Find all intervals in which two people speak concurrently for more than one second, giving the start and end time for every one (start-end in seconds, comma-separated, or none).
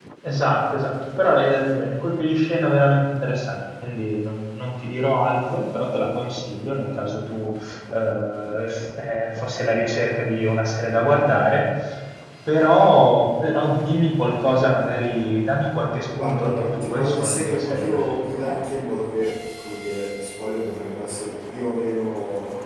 16.2-18.3